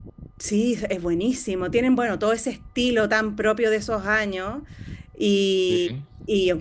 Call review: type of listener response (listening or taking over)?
listening